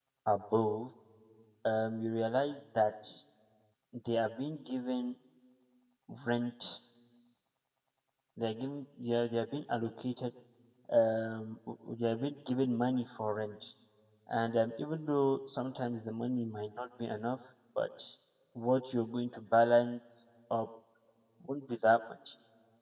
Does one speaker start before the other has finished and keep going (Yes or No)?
No